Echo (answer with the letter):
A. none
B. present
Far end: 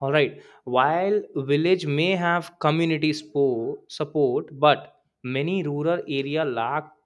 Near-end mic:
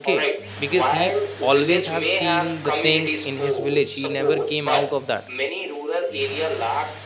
B